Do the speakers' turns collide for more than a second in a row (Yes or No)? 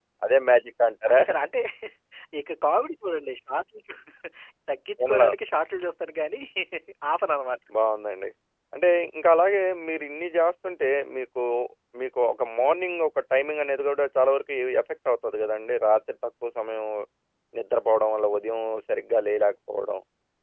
No